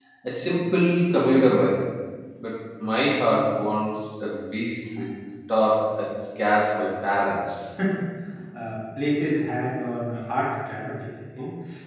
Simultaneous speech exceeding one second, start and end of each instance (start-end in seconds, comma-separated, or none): none